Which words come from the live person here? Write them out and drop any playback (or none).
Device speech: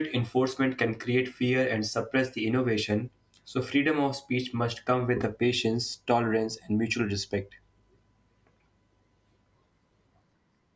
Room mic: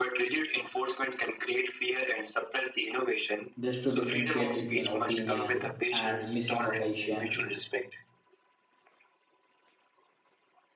just to differentiate between opinion and misinformation